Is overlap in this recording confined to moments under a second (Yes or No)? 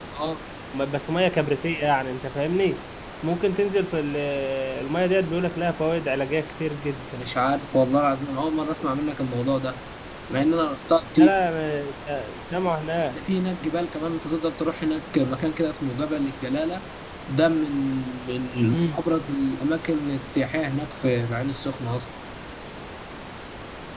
Yes